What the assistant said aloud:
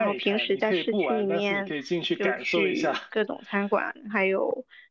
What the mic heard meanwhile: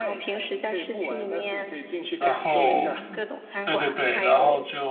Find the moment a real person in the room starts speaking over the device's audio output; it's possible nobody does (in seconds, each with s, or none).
2.2 s